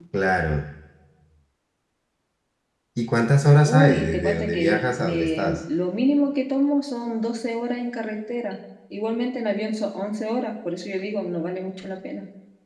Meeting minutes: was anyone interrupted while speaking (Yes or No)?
Yes